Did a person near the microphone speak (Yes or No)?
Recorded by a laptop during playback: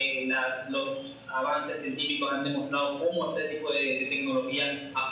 No